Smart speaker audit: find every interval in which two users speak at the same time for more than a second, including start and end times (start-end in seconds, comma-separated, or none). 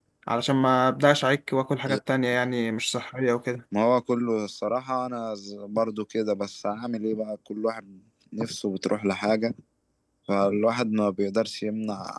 none